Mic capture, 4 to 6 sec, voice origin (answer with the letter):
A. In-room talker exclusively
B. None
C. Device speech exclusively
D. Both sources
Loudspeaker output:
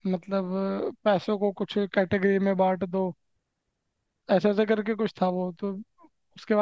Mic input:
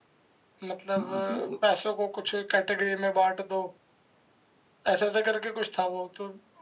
C